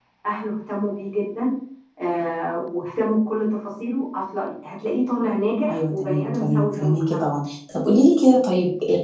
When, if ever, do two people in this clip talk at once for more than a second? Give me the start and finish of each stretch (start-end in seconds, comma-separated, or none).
5.7-7.3